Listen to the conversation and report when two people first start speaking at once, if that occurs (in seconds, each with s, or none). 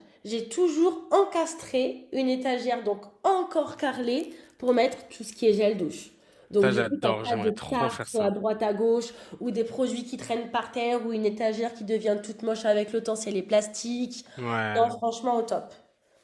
6.6 s